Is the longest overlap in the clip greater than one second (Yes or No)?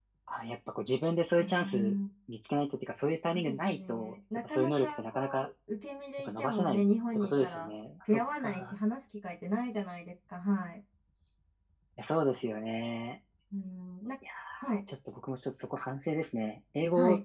Yes